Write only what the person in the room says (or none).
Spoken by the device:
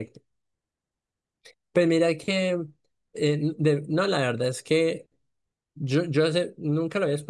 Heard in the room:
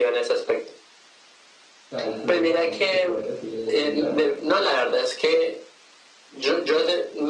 o sea, el flujo de gente que puede recibir es muy grande.